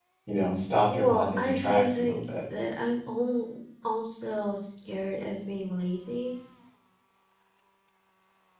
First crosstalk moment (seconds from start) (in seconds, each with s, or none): 0.9 s